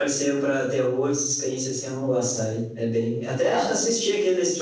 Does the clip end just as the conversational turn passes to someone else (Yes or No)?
No